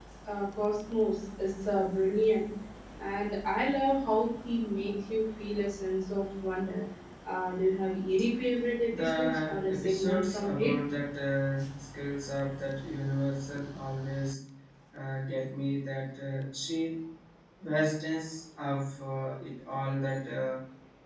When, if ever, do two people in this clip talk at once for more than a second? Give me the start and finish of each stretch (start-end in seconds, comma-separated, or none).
8.9-10.7